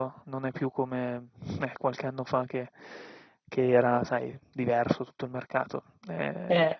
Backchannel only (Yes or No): Yes